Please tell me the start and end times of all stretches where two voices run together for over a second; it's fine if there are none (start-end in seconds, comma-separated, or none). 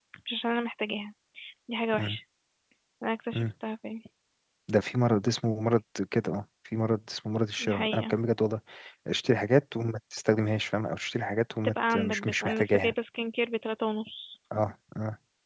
11.6-12.9